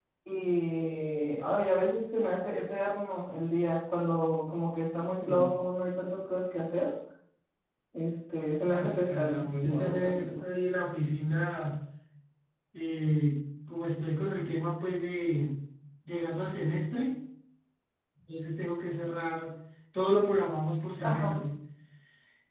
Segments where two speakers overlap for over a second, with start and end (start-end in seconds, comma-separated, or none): 8.7-10.4